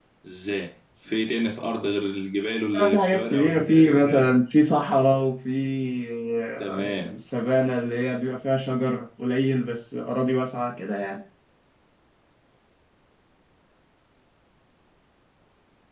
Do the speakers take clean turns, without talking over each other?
No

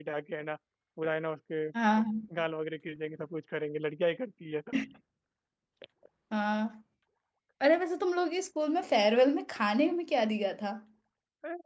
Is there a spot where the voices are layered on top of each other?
No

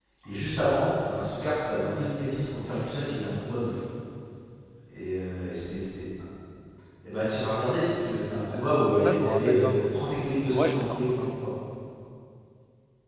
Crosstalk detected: Yes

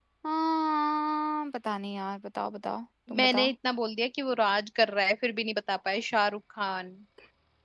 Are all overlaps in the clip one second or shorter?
Yes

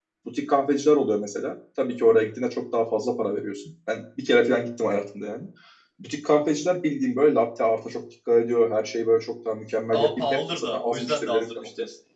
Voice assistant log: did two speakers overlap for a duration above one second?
Yes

